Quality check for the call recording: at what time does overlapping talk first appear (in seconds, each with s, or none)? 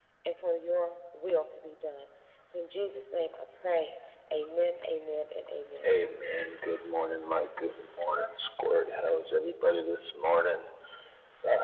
none